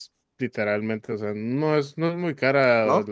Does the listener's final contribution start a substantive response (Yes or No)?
No